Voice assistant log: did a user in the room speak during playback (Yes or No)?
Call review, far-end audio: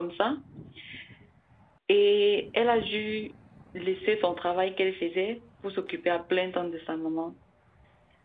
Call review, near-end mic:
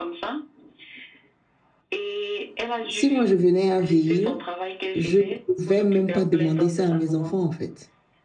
Yes